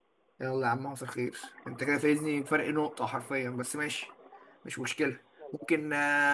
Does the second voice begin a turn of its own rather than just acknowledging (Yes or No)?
No